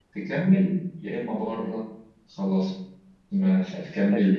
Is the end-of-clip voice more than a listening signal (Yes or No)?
No